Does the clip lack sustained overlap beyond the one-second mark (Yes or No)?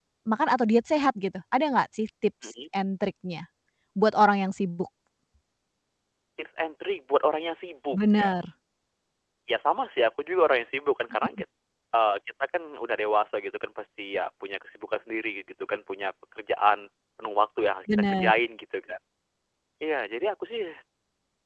Yes